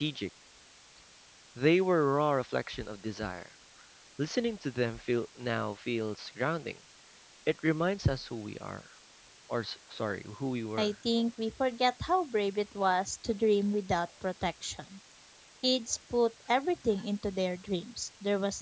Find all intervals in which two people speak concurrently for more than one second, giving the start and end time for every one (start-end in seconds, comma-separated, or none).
none